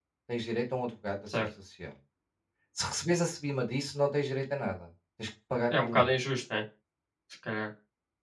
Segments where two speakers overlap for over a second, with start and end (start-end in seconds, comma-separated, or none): none